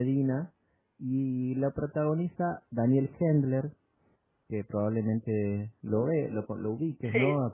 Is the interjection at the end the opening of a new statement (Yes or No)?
No